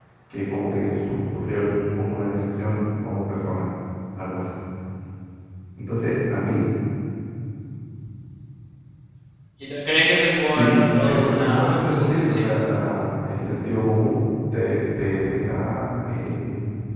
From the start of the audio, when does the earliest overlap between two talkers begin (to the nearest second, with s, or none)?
11 s